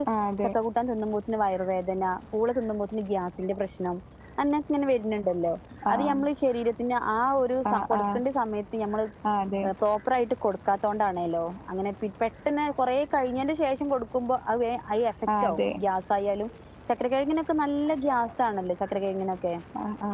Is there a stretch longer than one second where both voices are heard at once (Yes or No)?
No